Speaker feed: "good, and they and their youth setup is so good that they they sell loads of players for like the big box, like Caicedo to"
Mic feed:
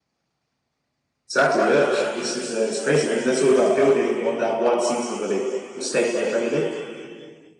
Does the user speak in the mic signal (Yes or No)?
Yes